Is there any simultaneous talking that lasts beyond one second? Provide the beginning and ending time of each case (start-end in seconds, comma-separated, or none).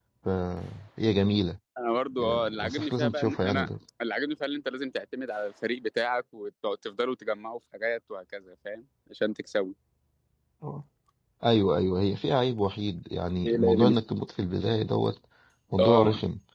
2.4-3.7